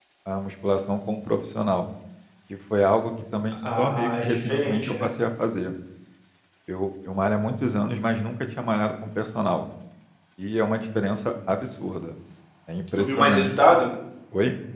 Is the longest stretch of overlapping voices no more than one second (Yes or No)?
No